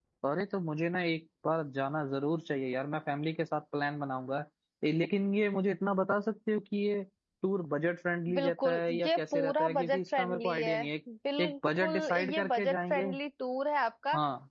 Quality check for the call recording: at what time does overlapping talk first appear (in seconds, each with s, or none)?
8.3 s